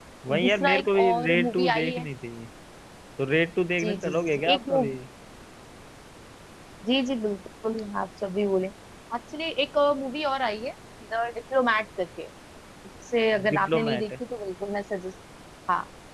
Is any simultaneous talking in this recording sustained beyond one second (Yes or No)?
Yes